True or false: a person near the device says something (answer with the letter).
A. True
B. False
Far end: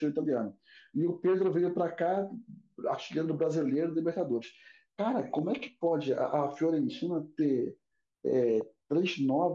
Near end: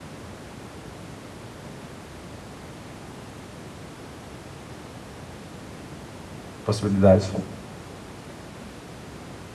A